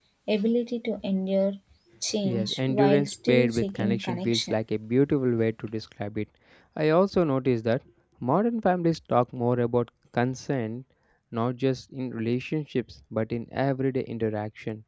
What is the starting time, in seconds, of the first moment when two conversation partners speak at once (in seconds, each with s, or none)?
2.2 s